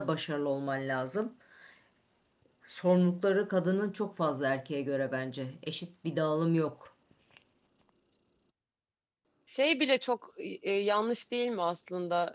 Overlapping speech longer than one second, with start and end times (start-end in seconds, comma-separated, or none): none